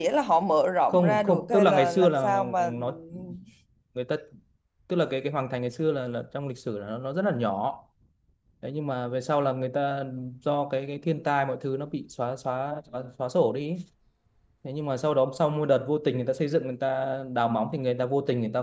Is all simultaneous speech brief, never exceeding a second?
No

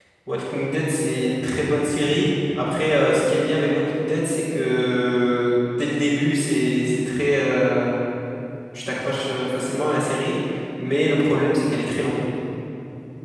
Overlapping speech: No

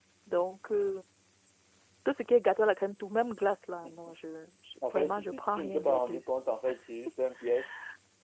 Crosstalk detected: Yes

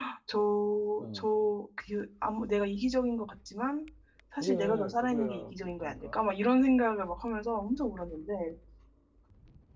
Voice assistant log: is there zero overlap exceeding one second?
No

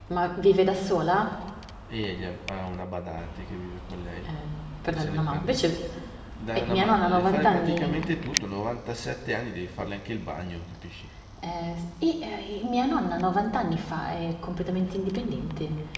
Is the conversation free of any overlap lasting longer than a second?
No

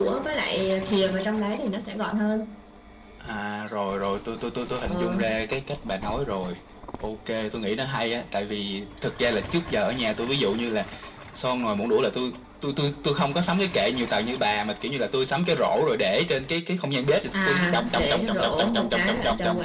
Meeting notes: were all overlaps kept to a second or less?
No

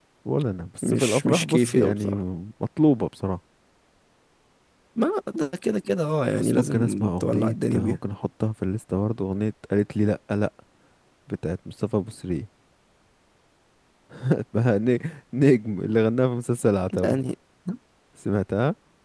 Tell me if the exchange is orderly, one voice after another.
No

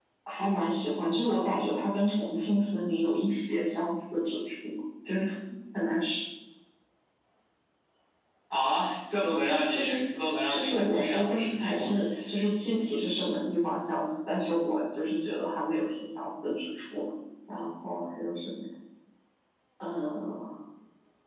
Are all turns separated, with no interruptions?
No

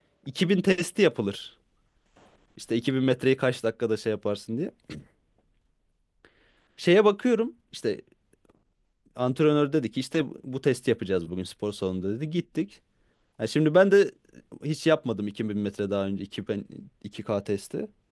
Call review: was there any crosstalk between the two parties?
No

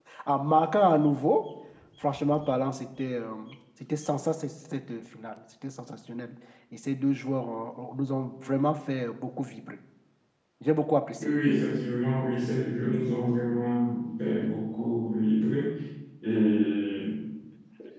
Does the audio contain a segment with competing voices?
No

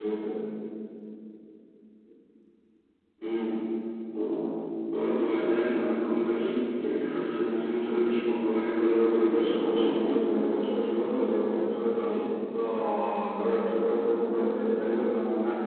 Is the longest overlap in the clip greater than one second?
Yes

